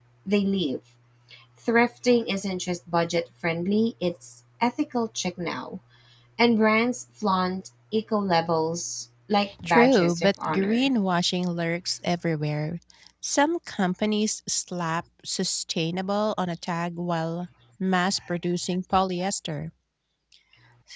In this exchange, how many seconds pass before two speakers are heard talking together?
9.6 s

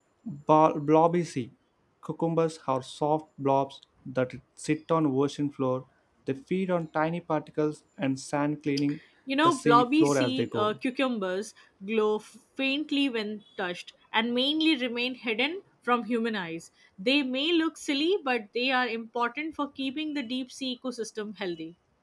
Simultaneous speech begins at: 9.4 s

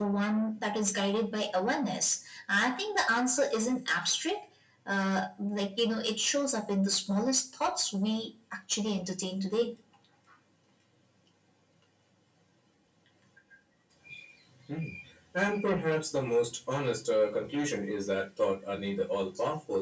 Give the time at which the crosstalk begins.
none

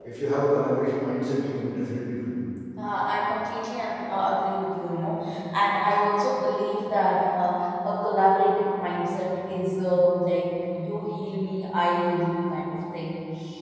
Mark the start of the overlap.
none

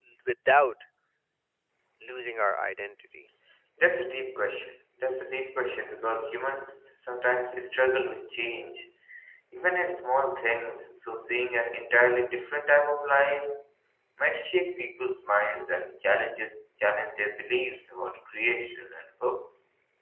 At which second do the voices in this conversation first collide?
none

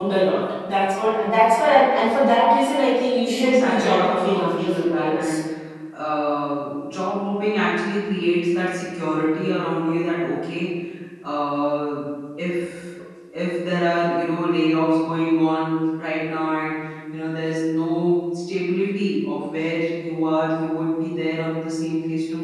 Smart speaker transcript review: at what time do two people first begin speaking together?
3.2 s

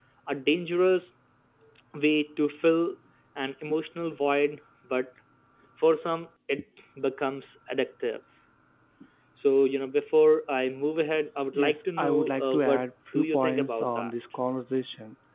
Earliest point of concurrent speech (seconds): 11.5 s

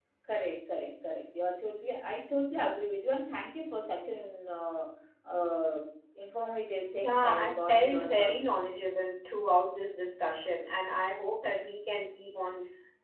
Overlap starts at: 7.0 s

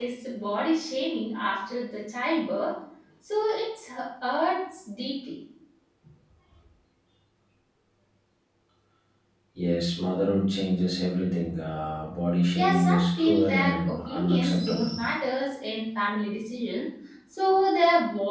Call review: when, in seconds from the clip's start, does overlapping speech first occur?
12.6 s

